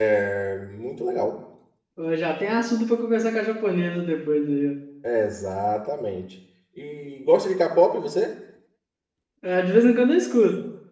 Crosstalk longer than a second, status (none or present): none